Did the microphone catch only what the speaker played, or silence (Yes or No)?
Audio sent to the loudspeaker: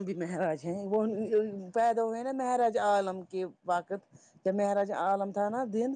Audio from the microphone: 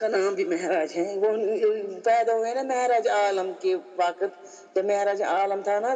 Yes